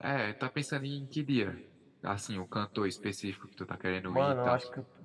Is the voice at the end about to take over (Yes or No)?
Yes